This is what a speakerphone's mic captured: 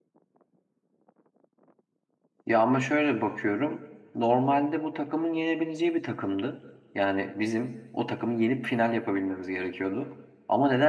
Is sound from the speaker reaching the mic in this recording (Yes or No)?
No